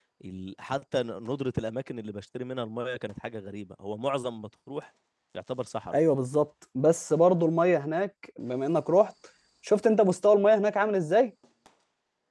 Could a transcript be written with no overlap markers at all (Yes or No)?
Yes